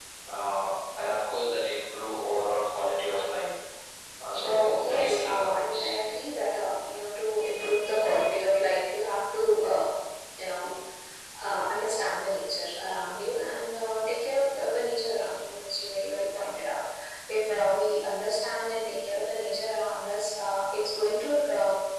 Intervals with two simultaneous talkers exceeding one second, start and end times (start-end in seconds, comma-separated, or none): 4.4-5.9